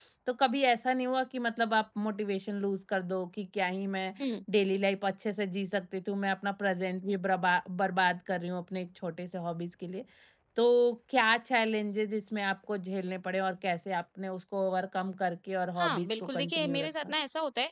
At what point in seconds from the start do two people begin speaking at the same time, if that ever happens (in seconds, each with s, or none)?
15.8 s